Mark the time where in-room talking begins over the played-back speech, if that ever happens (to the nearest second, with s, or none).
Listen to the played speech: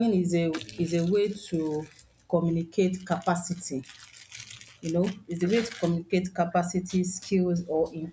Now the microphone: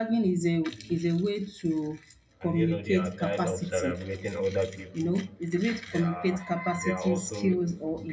2 s